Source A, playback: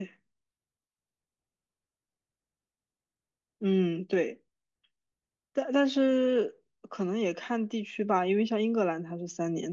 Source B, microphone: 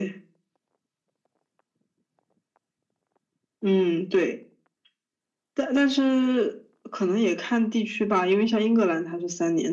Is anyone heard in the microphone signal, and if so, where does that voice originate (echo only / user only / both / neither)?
echo only